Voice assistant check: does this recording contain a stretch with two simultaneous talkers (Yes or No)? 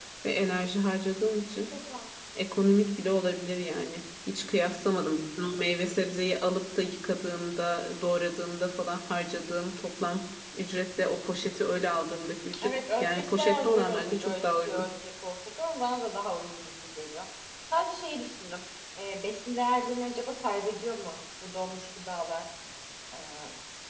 Yes